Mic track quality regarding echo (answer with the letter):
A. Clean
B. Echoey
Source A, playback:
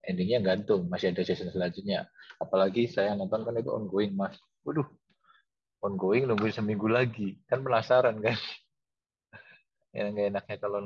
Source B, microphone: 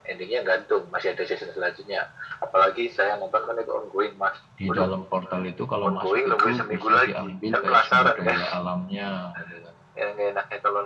B